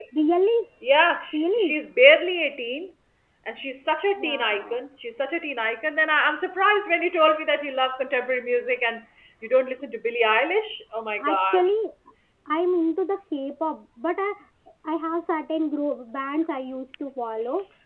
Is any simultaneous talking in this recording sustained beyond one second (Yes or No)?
No